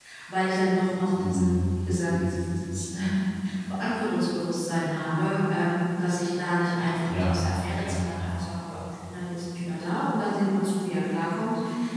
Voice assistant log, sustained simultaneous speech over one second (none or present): none